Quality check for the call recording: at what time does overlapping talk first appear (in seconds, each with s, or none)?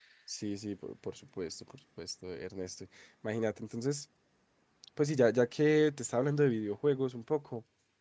none